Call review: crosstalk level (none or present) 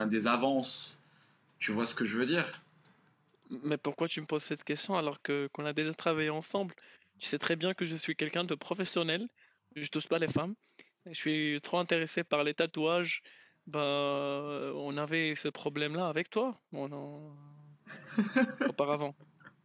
none